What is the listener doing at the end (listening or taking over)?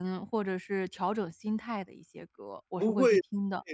taking over